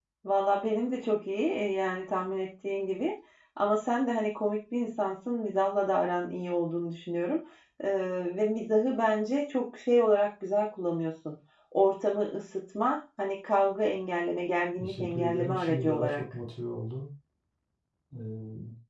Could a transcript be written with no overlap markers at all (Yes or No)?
No